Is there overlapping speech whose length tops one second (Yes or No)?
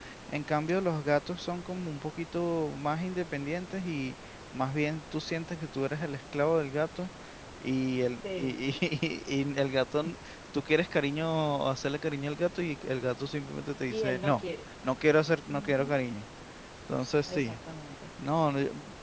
No